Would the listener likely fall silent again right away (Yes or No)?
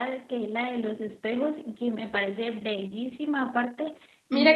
No